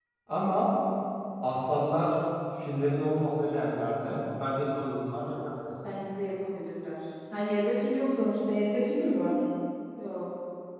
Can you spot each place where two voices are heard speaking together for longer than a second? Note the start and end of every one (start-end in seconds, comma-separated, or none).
none